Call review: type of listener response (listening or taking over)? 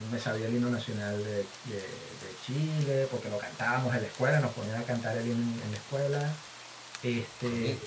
taking over